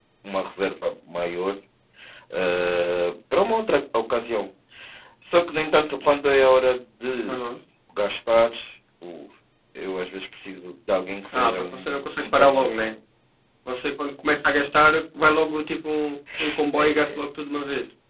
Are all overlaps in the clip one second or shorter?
No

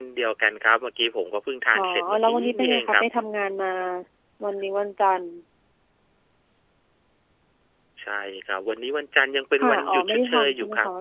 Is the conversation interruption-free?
No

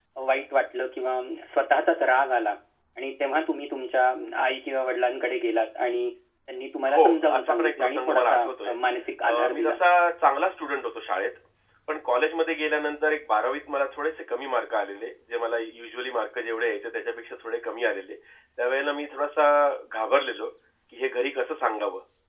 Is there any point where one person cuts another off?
Yes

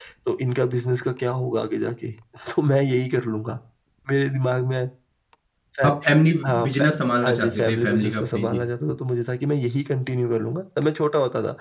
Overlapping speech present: Yes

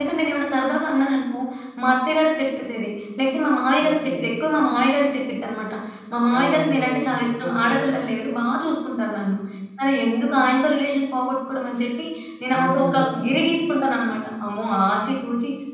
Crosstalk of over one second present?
Yes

